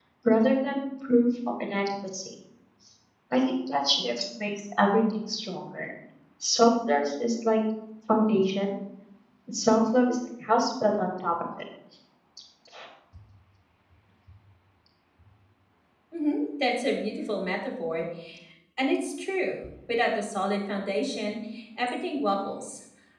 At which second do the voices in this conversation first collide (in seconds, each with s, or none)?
none